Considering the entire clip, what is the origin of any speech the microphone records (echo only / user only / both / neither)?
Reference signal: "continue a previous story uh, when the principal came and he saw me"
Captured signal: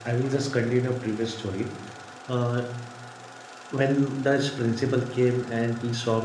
echo only